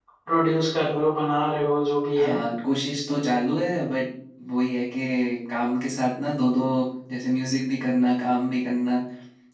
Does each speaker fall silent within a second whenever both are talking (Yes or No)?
Yes